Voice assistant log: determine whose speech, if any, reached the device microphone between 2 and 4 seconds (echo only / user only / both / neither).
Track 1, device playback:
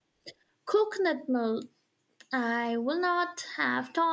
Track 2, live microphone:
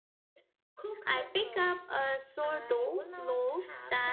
both